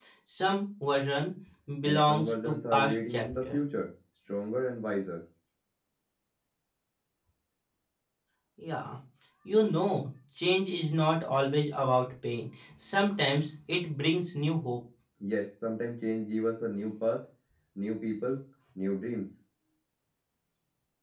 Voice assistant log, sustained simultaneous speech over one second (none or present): present